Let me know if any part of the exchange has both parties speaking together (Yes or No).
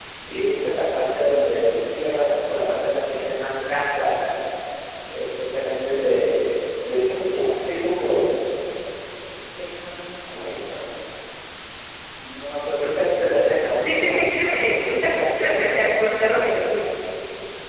Yes